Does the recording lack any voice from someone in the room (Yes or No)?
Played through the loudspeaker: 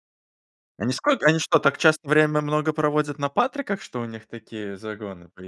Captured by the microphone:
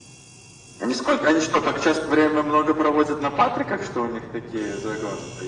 Yes